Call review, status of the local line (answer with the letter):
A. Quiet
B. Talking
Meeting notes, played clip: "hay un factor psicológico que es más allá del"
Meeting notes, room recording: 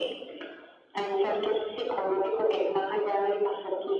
A